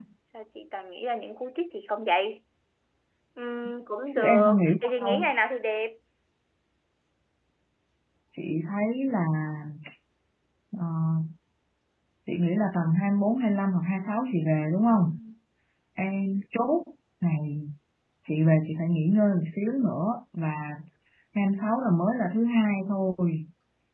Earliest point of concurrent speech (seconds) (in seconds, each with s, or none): 4.1 s